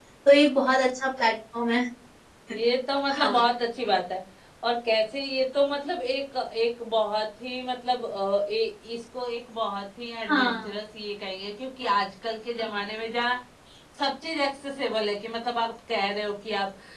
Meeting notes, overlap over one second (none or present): none